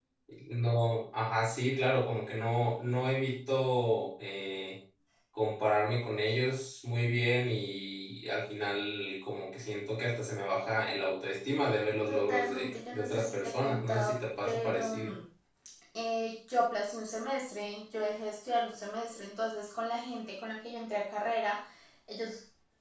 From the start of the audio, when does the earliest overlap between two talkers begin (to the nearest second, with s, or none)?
12 s